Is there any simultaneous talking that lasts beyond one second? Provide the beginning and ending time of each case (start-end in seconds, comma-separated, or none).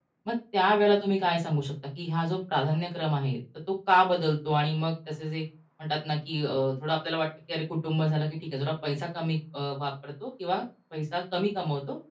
none